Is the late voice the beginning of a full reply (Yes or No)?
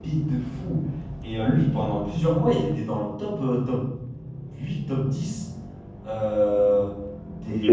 No